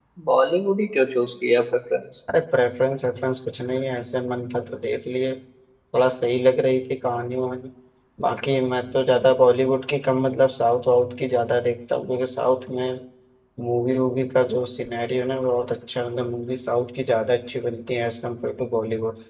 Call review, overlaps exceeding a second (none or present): none